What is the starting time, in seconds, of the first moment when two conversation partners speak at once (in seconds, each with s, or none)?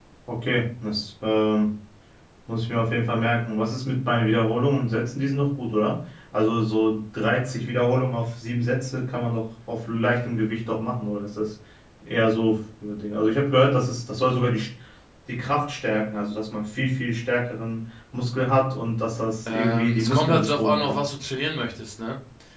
19.5 s